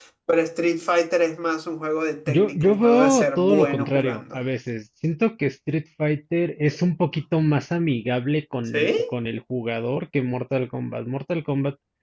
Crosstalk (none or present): present